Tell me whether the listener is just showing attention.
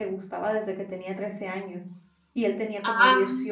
Yes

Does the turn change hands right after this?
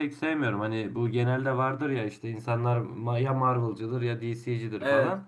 No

